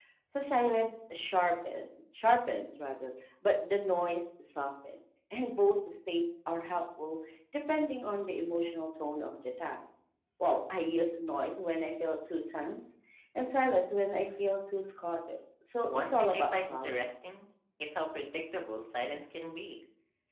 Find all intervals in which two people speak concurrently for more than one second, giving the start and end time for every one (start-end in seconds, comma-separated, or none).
15.9-17.1